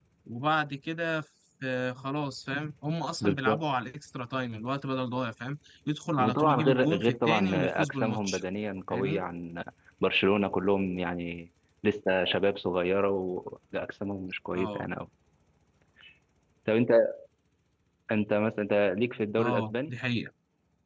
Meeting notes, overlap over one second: present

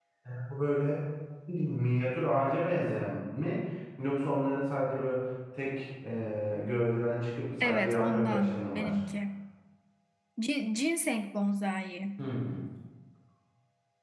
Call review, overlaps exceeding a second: present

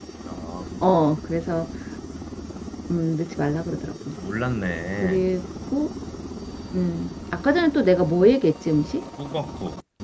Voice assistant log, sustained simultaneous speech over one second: none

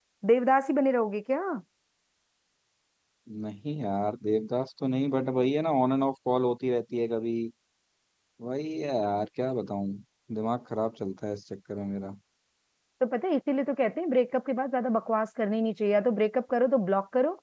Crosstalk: none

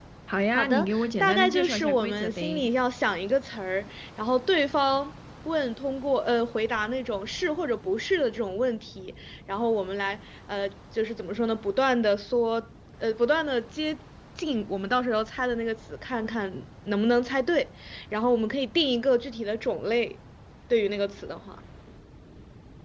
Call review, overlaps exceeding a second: present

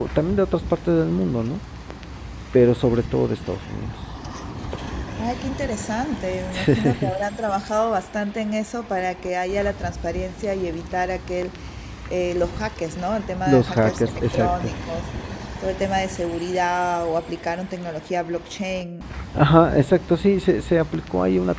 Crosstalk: present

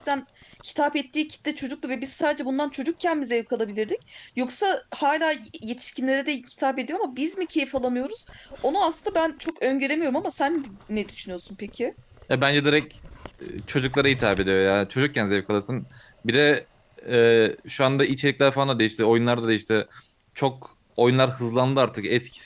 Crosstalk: none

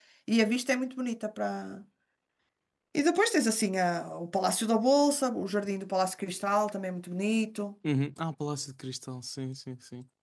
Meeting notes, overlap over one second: none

